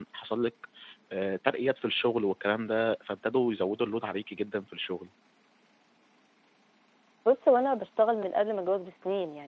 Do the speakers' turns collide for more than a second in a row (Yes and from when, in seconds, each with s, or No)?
No